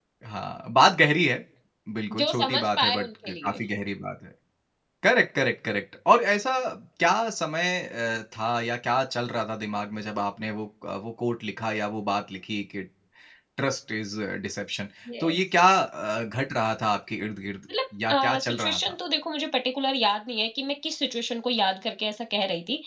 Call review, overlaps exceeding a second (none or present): present